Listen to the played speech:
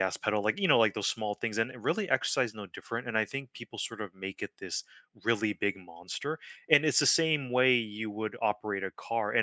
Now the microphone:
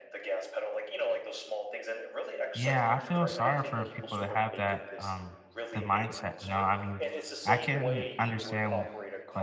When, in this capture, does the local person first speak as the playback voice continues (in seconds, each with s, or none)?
2.5 s